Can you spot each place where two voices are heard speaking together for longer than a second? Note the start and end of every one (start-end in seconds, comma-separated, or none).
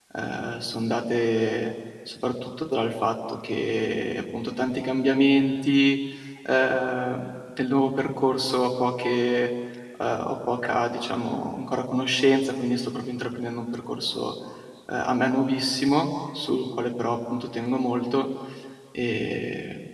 none